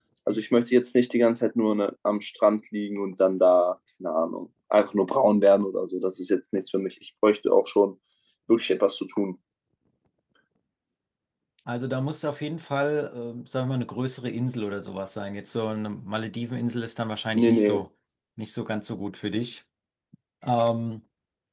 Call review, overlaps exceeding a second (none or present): none